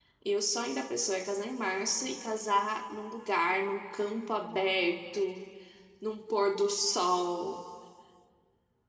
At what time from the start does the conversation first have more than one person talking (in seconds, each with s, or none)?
none